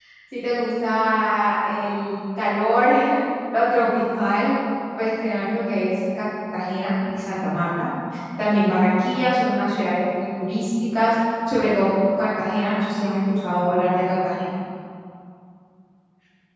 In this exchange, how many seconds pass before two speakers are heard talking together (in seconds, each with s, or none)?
none